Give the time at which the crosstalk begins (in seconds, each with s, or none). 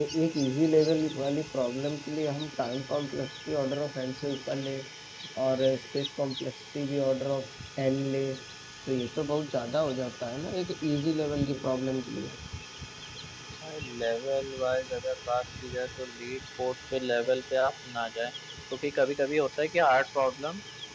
none